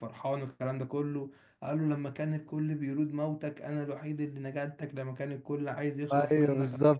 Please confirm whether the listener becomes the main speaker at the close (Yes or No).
No